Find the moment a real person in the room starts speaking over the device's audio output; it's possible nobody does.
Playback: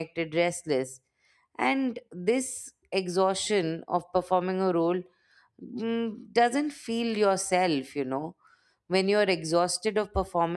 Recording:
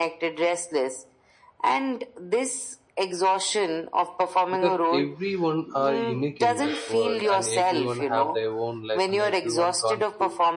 4.5 s

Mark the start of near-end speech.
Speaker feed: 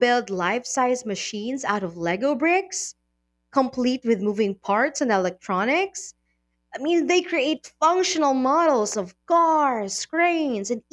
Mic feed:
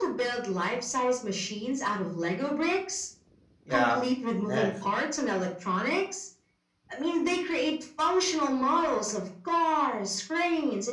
3.6 s

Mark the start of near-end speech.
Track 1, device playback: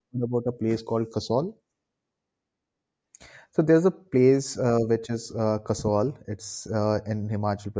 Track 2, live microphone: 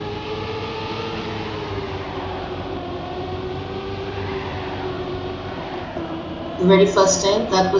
6.6 s

